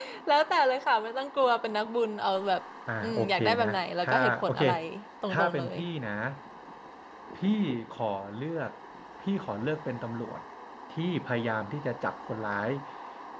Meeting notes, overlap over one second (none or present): present